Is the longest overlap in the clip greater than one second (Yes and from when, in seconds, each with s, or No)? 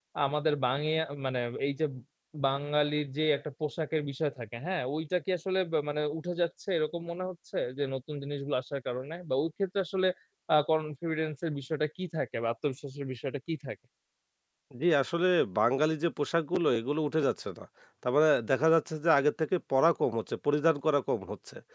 No